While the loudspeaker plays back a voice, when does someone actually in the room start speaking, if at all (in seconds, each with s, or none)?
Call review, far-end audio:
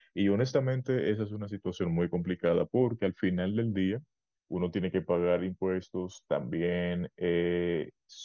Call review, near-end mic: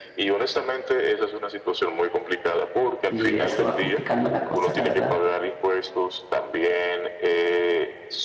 3.1 s